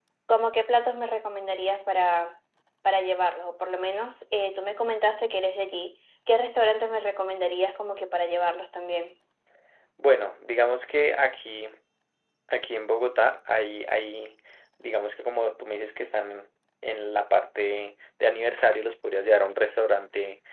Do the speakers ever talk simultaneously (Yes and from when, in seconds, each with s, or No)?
No